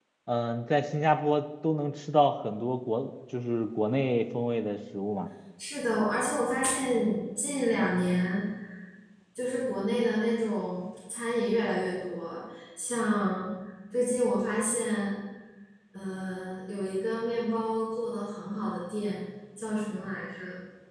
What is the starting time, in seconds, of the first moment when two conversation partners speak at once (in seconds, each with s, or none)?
none